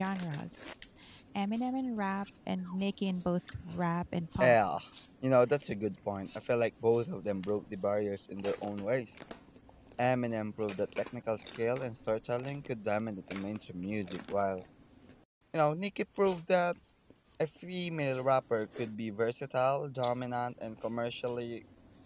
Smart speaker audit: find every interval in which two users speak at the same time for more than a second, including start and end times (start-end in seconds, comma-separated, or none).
none